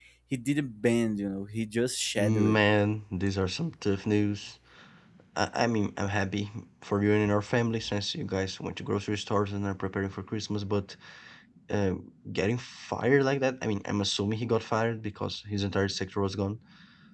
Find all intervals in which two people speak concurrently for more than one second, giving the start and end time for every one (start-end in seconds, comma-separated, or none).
none